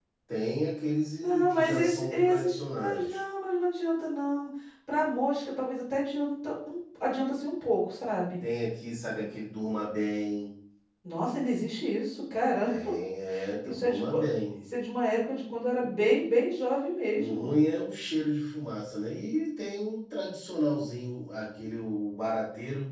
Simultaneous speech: Yes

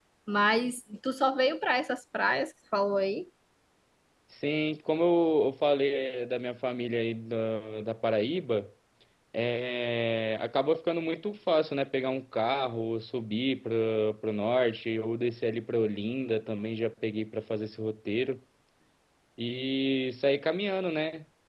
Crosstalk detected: No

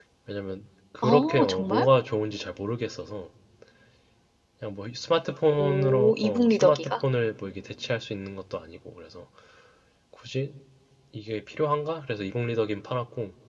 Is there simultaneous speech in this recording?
Yes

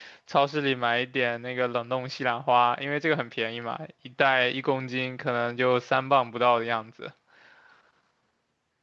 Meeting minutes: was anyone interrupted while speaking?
No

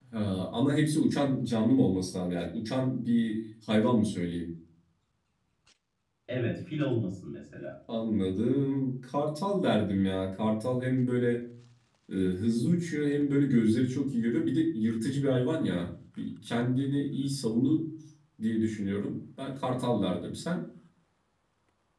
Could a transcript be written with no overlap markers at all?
Yes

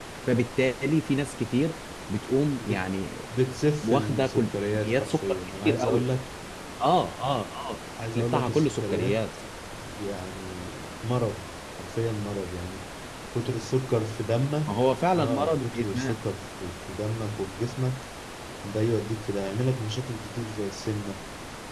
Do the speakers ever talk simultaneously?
Yes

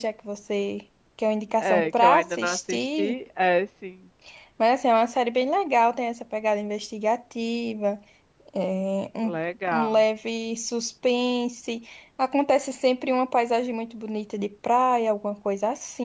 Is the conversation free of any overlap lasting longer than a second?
No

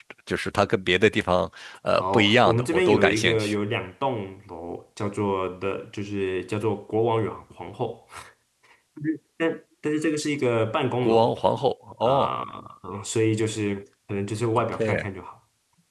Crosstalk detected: Yes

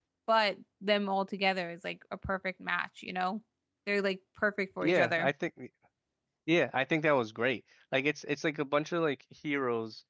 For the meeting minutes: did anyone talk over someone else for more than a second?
No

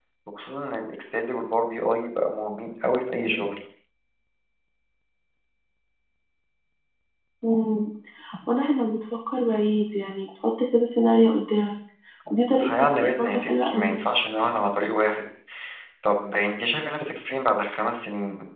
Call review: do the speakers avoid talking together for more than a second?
No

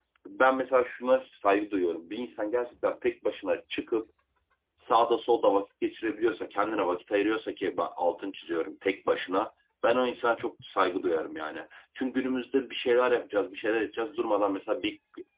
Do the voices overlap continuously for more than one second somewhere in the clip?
No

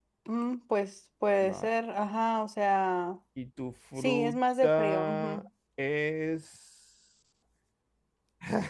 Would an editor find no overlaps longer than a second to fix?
No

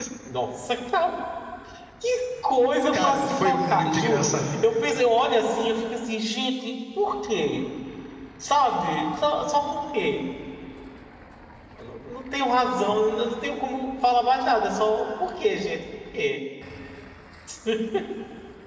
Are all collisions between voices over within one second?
No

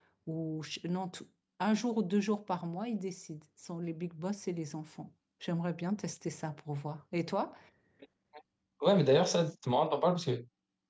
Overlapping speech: No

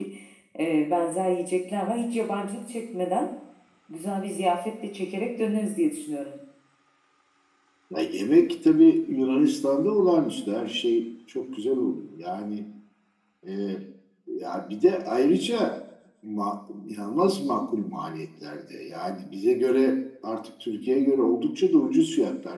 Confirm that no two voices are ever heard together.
Yes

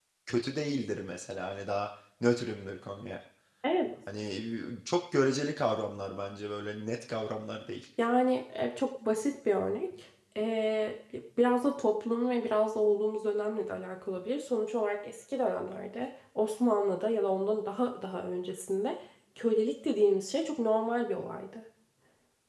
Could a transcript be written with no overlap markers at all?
Yes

